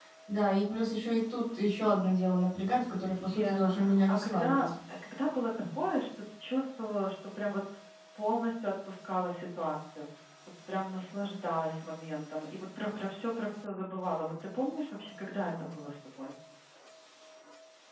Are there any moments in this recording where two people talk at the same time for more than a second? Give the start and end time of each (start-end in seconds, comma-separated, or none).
3.3-4.7